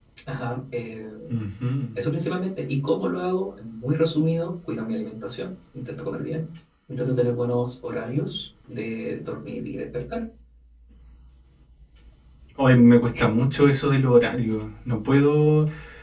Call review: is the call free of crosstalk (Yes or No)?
Yes